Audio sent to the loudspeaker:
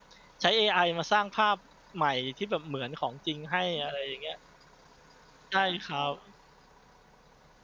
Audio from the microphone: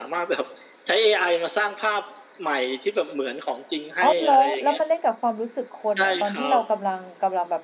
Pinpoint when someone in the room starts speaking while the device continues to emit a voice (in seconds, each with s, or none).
4.0 s